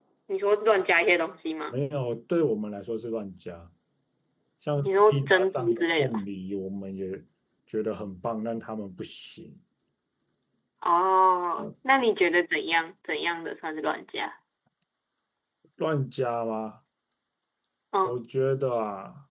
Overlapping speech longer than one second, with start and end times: 4.8-6.2

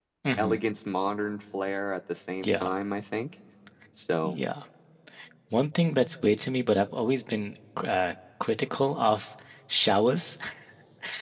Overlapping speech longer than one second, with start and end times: none

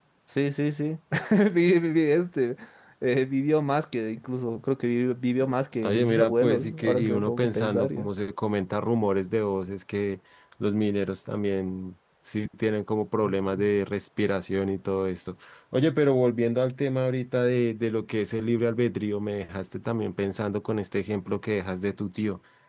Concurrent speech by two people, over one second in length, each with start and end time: 5.8-8.1

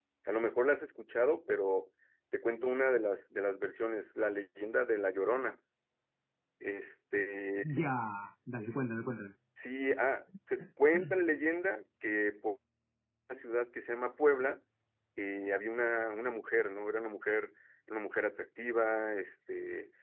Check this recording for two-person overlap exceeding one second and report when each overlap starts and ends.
none

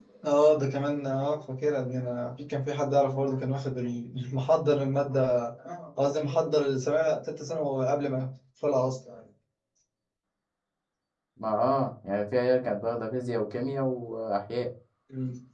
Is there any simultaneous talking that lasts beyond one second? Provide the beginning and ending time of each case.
none

